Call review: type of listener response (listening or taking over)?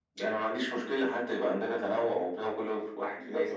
taking over